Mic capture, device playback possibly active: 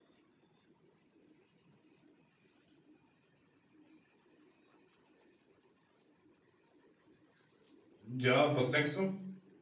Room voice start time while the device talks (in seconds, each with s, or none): 8.0 s